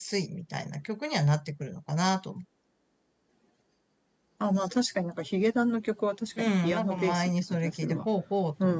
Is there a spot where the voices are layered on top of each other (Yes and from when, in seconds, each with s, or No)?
Yes, from 6.4 s